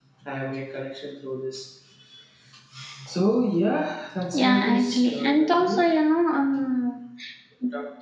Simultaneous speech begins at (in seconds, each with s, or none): 4.3 s